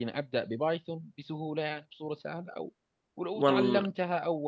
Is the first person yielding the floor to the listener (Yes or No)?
No